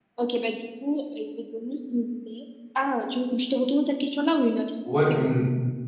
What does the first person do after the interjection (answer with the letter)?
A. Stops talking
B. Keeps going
A